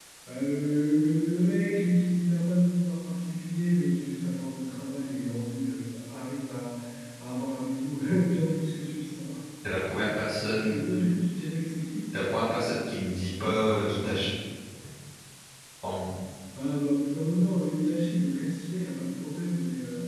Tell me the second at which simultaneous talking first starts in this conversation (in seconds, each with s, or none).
none